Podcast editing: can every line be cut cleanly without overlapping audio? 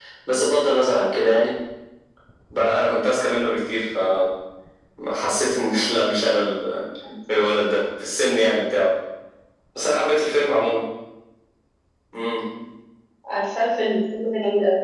Yes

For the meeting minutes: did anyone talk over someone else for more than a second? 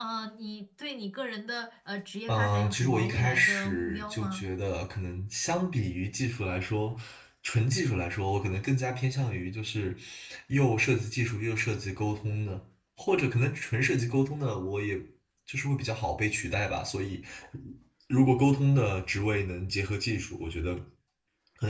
Yes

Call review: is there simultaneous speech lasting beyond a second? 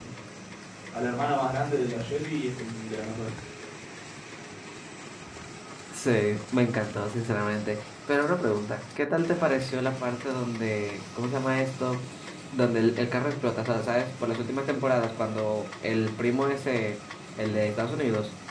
No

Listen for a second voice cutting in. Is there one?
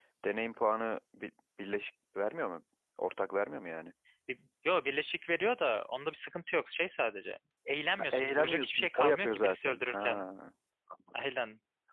Yes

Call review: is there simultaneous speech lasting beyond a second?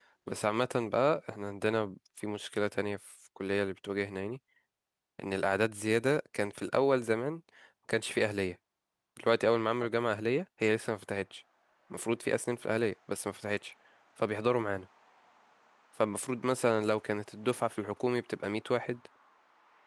No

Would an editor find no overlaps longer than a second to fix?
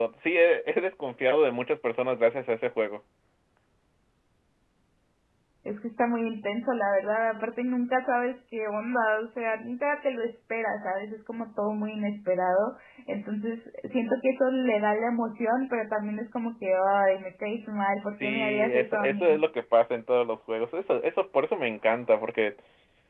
No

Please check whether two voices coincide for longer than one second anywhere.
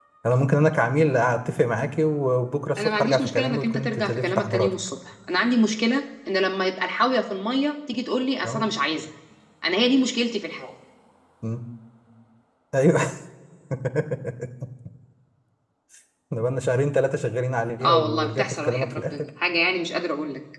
Yes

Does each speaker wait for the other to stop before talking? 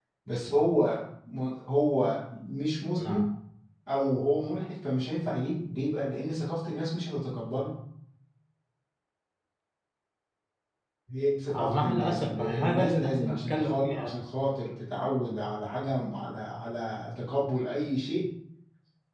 No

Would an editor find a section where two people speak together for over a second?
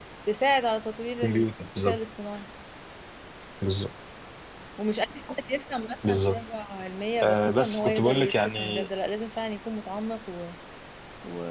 Yes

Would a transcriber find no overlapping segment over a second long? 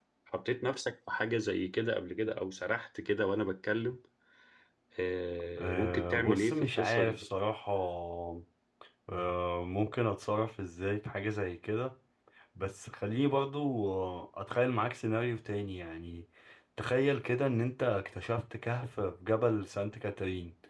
No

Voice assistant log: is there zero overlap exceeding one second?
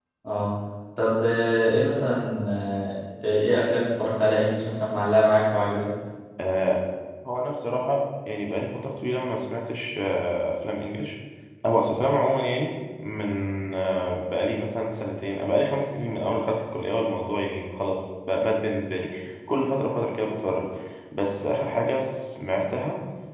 Yes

